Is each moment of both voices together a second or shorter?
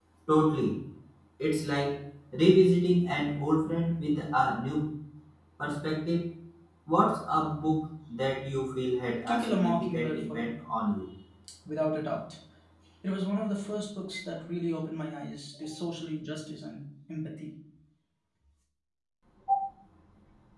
No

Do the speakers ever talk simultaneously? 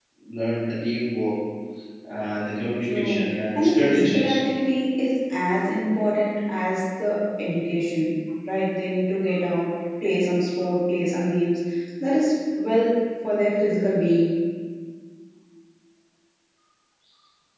Yes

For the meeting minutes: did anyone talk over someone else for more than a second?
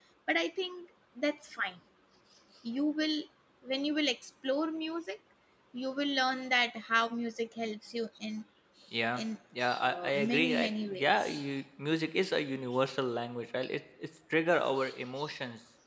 Yes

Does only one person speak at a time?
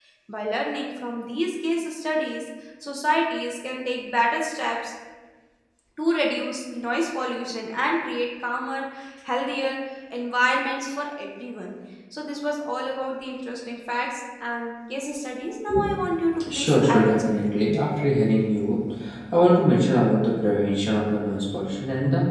No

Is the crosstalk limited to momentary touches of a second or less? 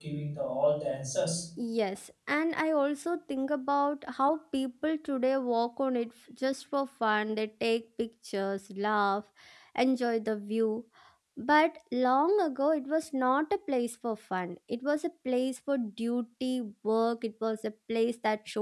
Yes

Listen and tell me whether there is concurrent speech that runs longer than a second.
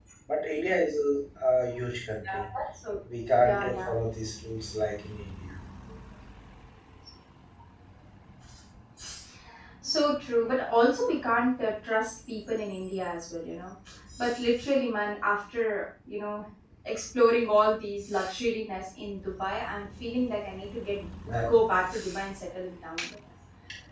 No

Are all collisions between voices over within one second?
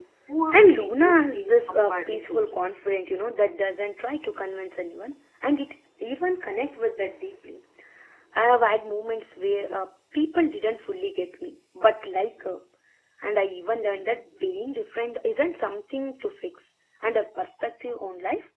No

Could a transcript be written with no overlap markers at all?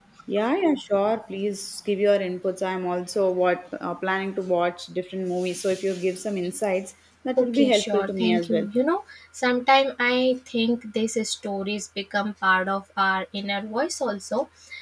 No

